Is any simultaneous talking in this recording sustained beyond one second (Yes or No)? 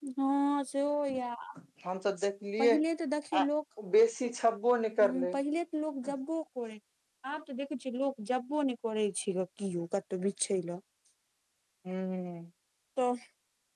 No